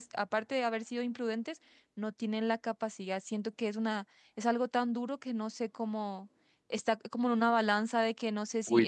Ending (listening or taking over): taking over